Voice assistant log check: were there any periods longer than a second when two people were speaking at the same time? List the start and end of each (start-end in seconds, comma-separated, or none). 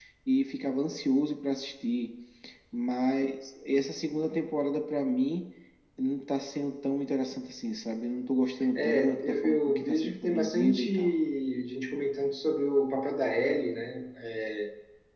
8.7-11.2